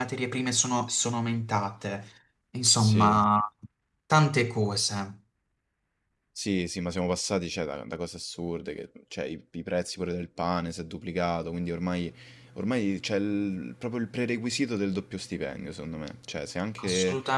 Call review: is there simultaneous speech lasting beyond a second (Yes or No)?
No